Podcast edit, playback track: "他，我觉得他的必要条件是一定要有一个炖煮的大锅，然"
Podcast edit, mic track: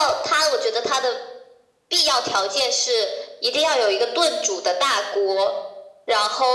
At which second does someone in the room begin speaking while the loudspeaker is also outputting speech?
none

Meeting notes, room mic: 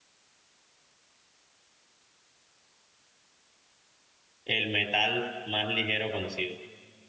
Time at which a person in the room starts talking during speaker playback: 4.4 s

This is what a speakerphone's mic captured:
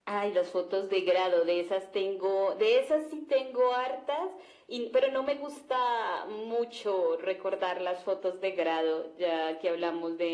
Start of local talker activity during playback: none

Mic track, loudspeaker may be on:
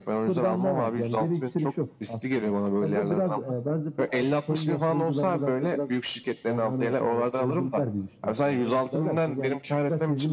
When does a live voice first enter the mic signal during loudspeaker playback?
none

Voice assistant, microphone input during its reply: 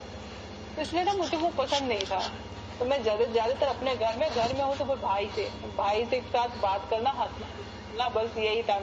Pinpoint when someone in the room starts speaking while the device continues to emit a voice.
none

